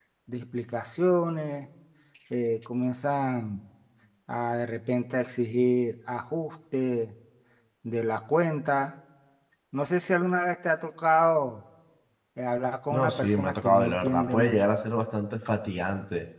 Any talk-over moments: Yes, from 12.9 s

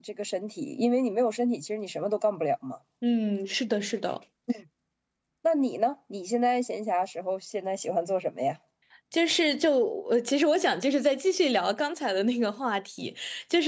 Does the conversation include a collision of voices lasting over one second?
No

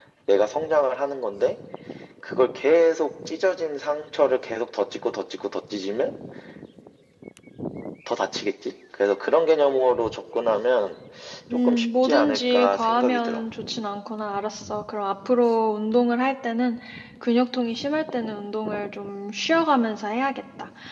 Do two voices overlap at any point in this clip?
Yes, from 11.5 s

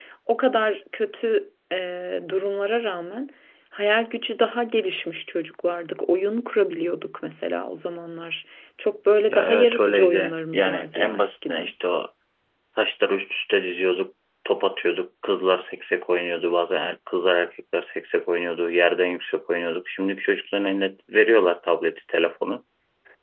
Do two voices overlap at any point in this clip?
Yes, from 9.3 s

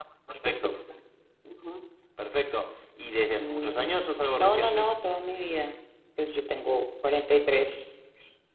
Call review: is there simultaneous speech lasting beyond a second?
No

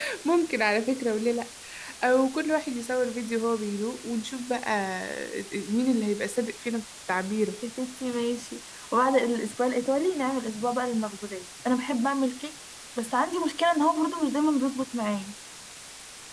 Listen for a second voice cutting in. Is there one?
No

